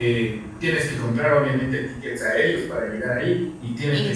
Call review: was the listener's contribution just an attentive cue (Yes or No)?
Yes